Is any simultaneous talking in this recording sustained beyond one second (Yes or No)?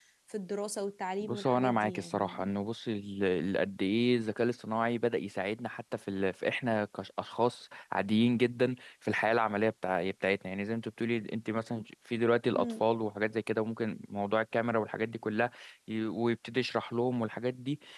Yes